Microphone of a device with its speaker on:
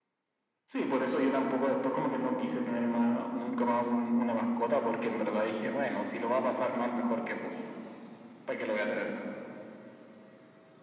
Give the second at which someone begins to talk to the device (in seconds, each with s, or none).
none